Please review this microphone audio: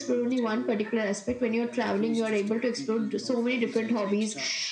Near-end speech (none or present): present